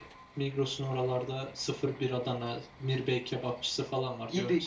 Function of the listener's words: taking over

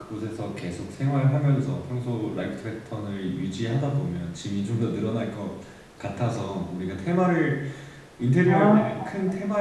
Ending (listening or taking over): listening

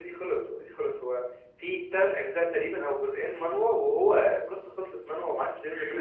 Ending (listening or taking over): taking over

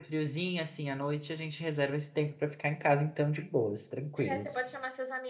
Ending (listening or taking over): taking over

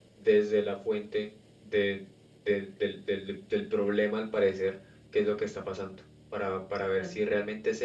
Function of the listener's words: listening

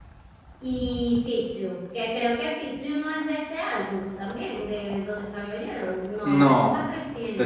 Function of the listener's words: taking over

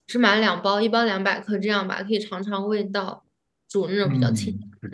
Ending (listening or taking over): taking over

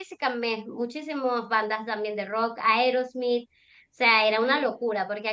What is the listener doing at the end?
listening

